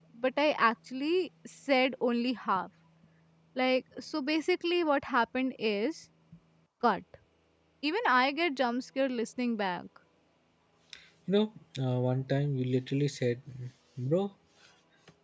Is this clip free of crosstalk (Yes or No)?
Yes